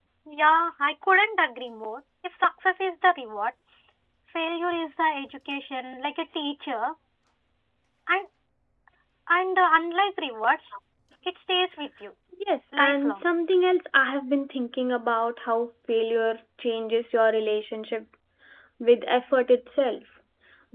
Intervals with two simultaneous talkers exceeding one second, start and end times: none

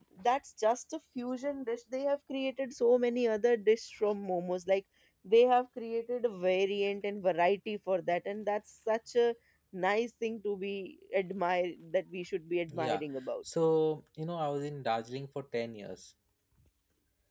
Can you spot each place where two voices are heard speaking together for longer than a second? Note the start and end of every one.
none

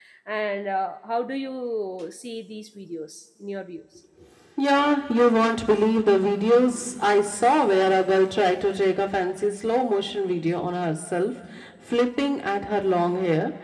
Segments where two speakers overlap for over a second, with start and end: none

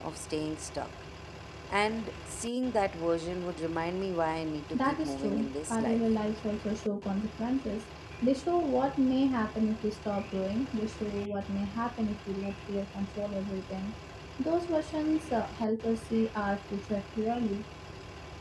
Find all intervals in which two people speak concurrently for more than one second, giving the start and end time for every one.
4.7-6.0

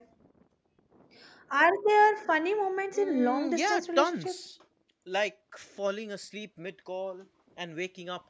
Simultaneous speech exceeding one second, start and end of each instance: 2.9-4.4

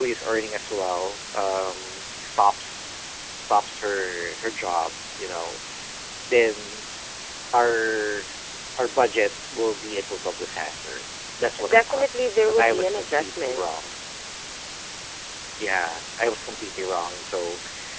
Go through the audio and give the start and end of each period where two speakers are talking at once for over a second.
12.4-13.9

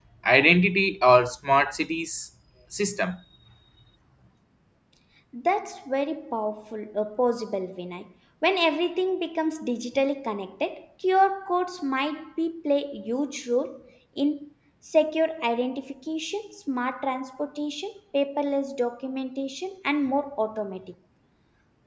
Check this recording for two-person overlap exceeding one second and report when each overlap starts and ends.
none

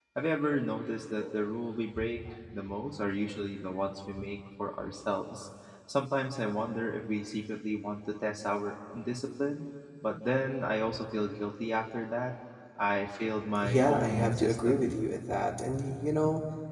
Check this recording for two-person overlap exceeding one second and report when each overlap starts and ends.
13.6-15.0

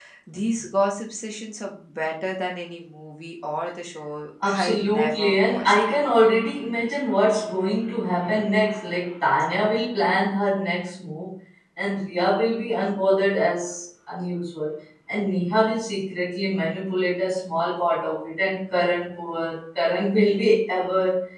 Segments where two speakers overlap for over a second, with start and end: 4.4-5.8

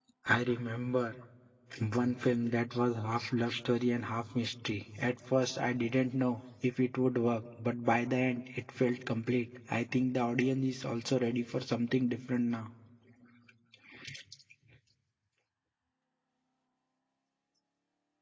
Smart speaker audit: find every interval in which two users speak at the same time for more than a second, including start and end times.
none

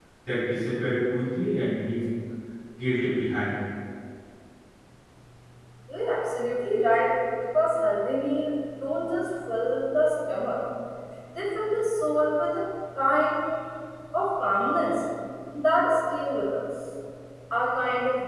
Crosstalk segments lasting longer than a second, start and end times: none

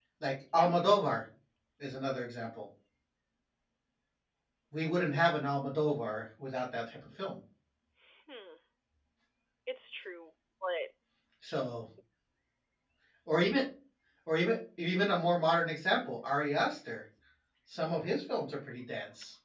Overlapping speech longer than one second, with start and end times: none

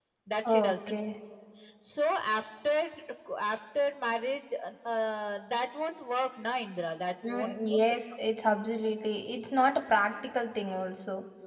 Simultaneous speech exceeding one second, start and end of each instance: none

